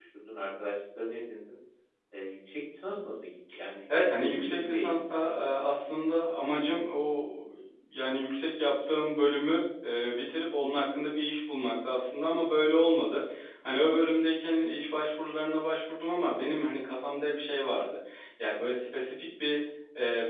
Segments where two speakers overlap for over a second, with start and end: 3.9-5.3

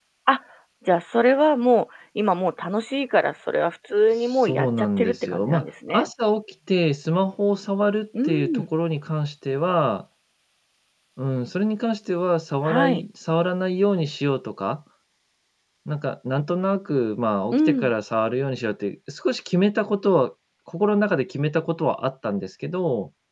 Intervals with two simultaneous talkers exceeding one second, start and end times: 4.2-6.1

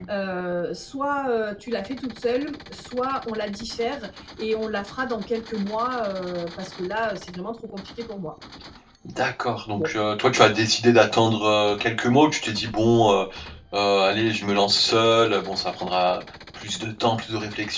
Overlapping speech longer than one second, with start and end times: none

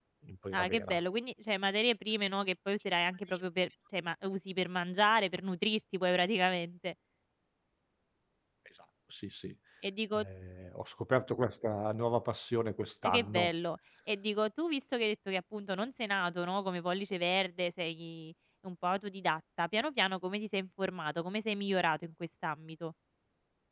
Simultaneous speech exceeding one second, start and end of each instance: none

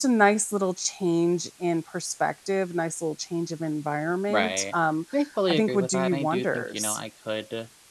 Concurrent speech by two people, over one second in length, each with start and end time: 5.5-7.0

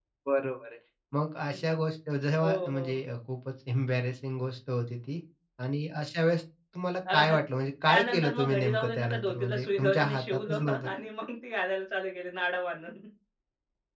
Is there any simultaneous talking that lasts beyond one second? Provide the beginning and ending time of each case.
7.9-10.9

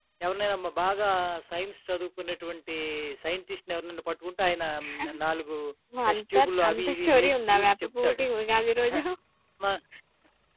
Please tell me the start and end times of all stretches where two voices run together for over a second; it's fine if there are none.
6.1-8.2

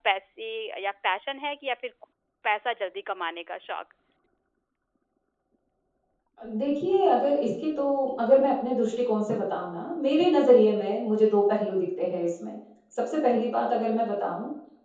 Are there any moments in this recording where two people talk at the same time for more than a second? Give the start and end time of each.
none

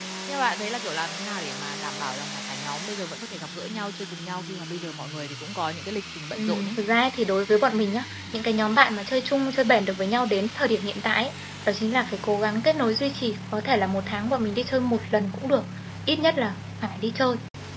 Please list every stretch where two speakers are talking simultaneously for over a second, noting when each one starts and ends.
none

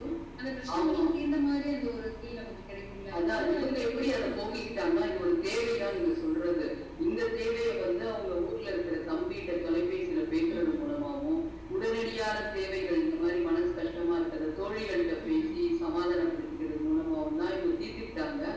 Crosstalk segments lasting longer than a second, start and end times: 3.2-5.5

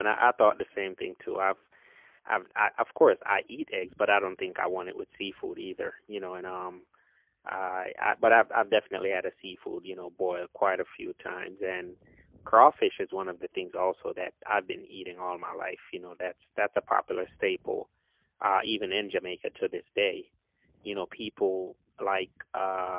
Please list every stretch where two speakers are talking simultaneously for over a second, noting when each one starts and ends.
none

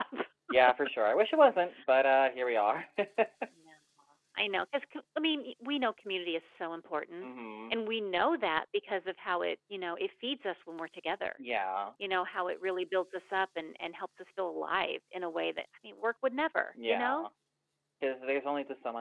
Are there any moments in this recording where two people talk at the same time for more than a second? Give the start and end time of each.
none

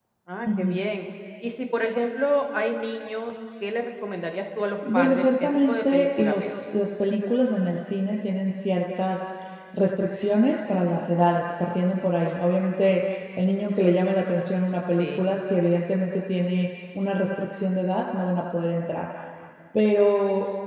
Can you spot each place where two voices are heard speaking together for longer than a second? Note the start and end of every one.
4.9-6.5

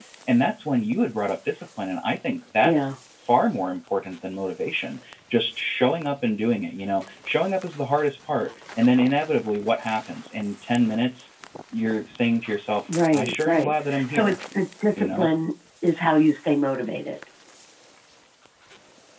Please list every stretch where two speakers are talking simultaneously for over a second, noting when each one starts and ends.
13.1-14.4

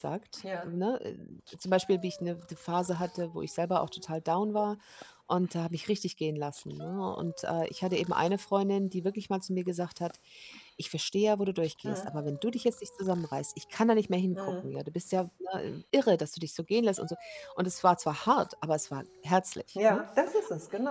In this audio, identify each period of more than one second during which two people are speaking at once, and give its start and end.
none

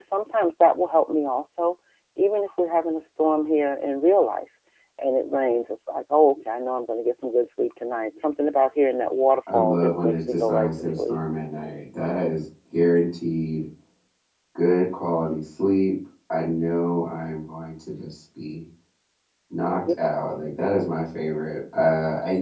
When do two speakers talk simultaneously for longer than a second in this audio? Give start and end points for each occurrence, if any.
9.5-11.2

